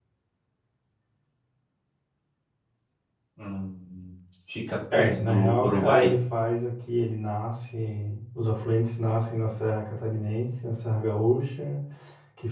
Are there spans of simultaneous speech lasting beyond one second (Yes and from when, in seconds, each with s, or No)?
Yes, from 4.9 s